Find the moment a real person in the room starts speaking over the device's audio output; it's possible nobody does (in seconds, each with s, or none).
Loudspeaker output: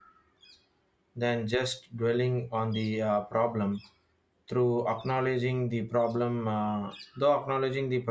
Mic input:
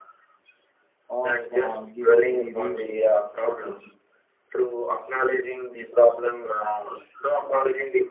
1.1 s